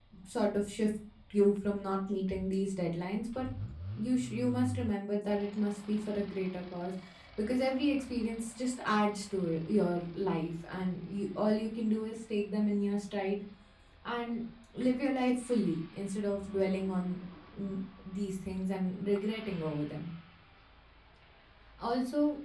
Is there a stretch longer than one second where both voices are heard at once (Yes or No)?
No